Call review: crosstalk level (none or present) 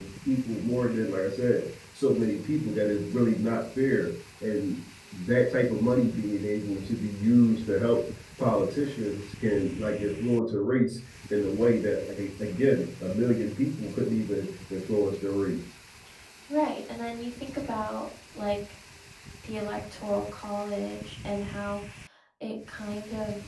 none